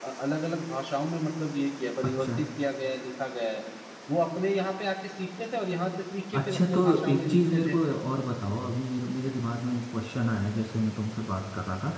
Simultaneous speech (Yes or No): Yes